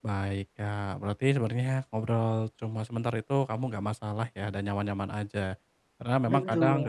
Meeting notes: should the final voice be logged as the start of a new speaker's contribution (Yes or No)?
No